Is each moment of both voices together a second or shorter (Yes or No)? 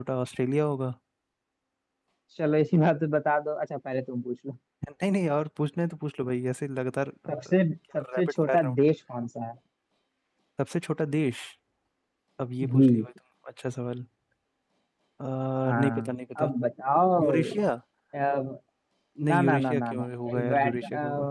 No